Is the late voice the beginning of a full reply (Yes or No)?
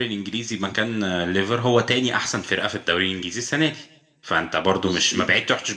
No